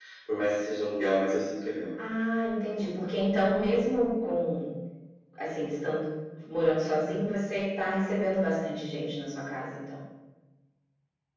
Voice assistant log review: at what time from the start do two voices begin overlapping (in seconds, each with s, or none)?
none